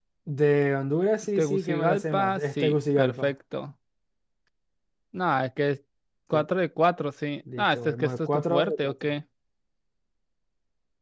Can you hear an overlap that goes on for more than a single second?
Yes, from 1.4 s

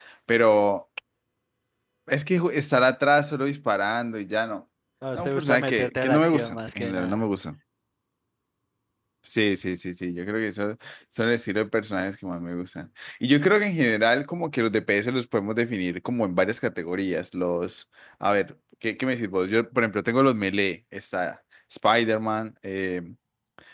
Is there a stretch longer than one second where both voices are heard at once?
Yes, from 5.2 s

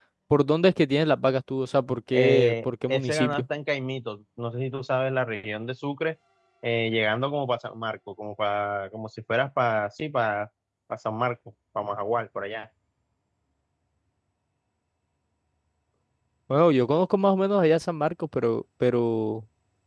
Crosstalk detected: Yes, from 2.1 s

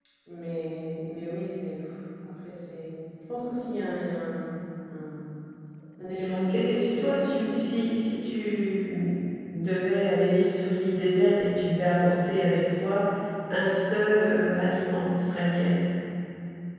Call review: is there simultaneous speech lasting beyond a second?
Yes, from 6.5 s

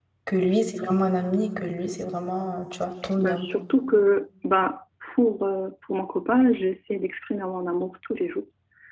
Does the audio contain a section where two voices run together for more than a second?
No

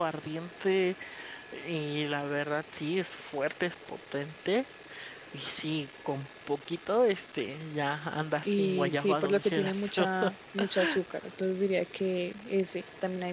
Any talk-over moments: Yes, from 8.4 s

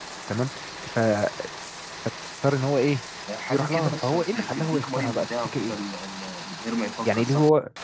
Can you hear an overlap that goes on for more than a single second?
Yes, from 3.5 s

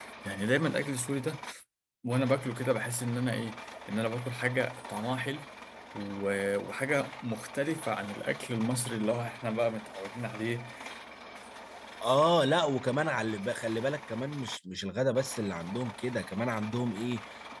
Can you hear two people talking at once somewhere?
No

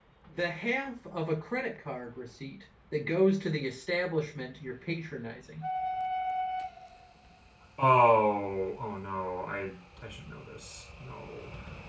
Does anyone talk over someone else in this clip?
No

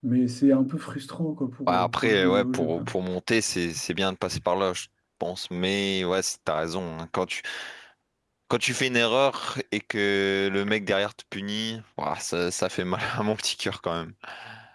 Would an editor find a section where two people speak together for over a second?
Yes, from 1.7 s

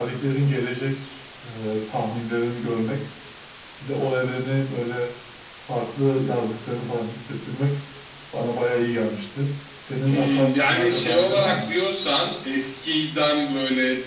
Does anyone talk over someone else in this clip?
Yes, from 10.1 s

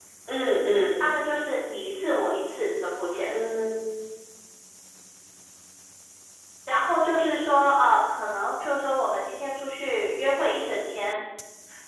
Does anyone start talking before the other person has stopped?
No

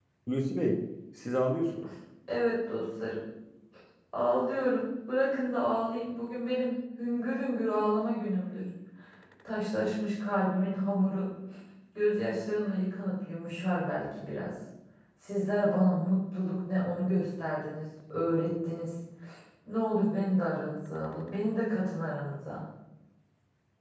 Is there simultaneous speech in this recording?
No

